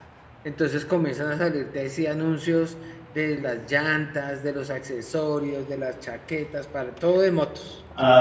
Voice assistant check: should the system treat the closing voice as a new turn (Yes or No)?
Yes